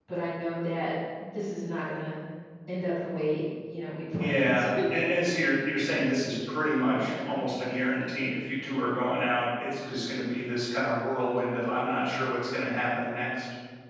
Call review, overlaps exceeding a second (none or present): none